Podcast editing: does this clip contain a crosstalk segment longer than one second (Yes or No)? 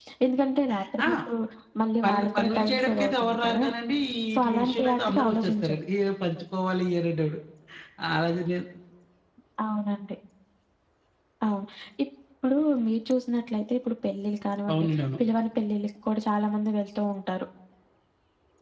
Yes